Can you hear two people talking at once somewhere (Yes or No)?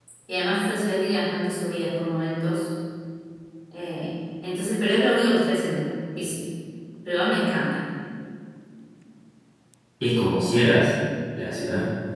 No